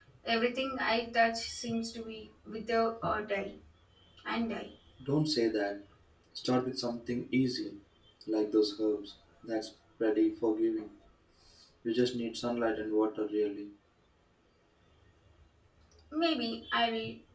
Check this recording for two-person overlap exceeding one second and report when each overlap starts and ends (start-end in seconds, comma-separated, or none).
none